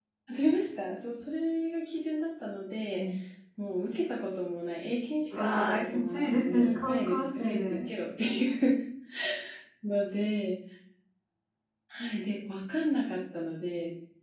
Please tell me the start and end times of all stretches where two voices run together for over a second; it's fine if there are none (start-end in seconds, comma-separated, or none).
5.4-7.8